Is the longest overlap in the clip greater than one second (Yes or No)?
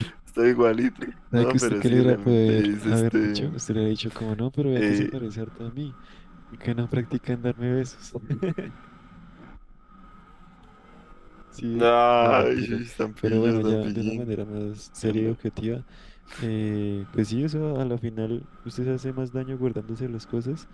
Yes